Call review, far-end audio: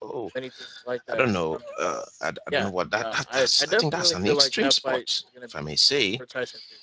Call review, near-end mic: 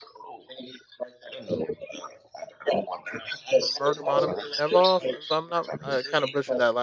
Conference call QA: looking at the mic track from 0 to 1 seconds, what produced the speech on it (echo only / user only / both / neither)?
echo only